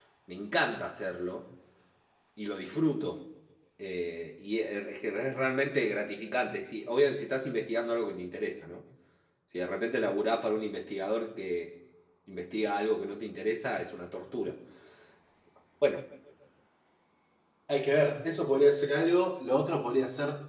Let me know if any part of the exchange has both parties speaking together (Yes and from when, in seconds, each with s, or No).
No